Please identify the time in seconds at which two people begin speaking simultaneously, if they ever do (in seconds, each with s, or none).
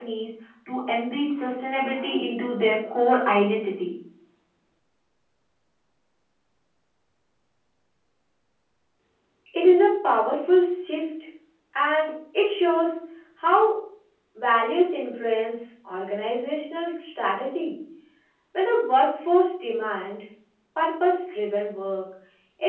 none